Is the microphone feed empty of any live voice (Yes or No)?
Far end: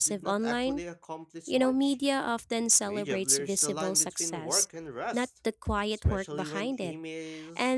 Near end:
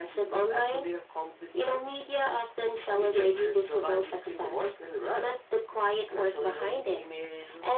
Yes